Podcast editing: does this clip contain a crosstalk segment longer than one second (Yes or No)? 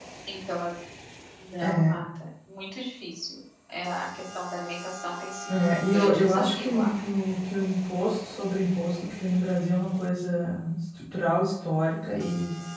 Yes